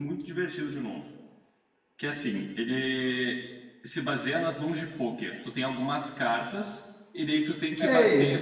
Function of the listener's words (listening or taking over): taking over